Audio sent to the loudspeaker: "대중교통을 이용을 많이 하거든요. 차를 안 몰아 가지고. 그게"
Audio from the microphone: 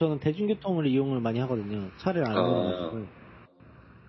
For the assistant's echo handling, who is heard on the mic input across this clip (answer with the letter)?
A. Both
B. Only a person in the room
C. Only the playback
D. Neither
A